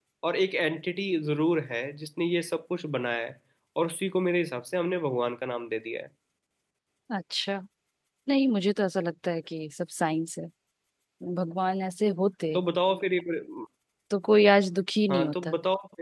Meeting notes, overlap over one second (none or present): none